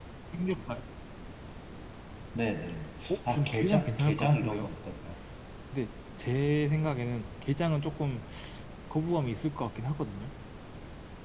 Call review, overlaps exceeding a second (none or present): present